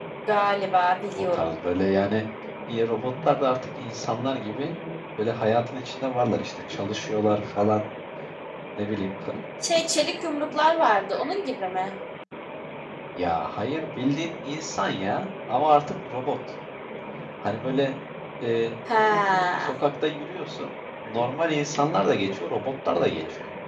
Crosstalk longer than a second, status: none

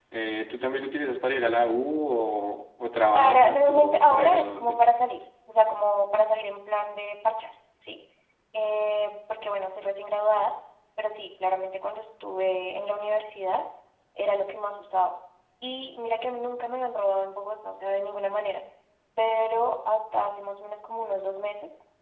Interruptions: present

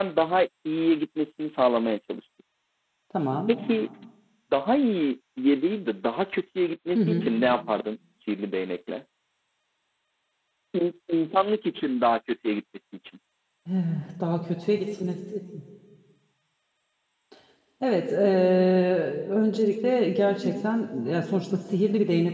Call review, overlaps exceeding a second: none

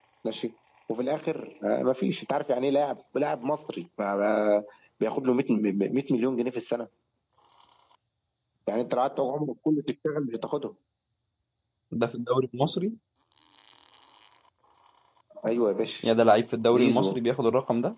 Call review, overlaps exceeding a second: none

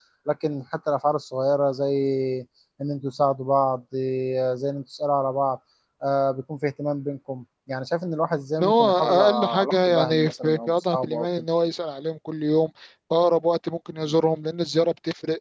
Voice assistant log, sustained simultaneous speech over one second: present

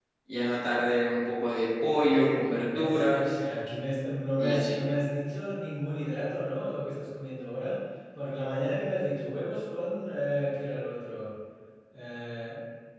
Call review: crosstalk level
present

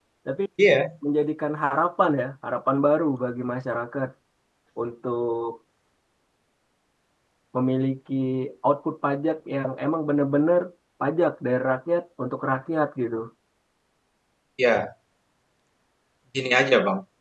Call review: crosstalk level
none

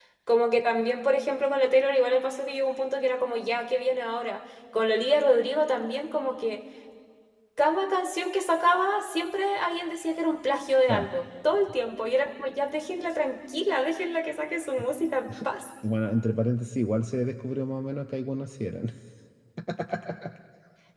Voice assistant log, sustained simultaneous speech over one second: none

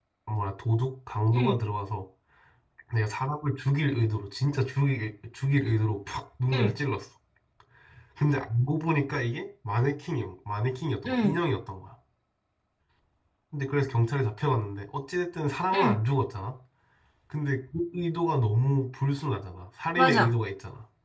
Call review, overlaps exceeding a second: none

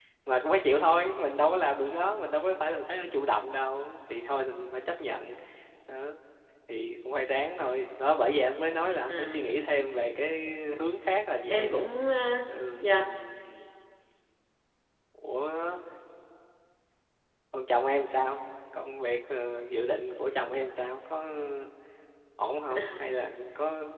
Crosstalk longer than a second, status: none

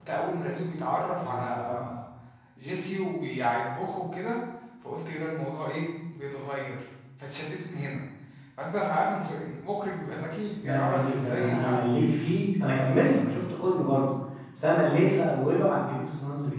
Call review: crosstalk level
present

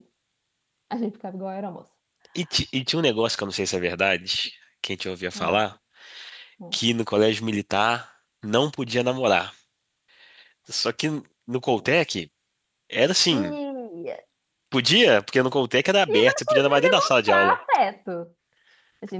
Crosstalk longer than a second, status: present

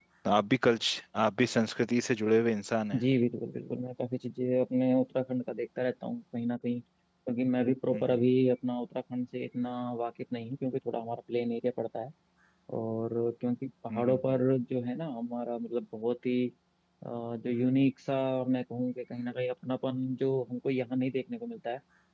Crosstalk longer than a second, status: none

